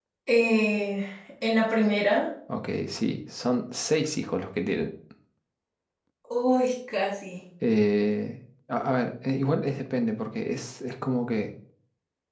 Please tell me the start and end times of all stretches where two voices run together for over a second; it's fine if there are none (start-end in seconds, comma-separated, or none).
none